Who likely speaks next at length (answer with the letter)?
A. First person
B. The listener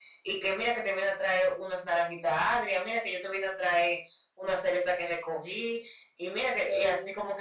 A